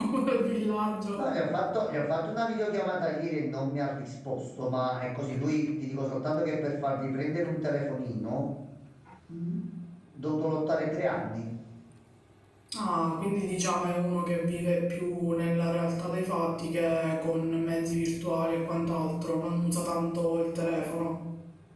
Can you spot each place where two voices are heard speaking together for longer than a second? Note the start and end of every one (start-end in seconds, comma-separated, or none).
none